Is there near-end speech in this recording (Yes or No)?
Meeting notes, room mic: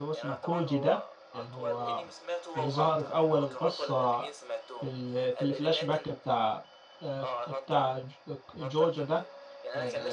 Yes